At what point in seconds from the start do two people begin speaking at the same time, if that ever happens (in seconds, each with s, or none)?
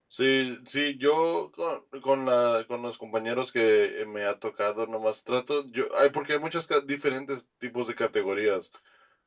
none